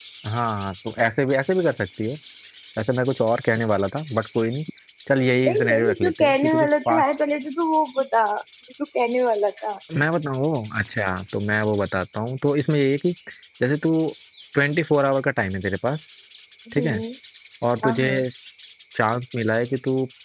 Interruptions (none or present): present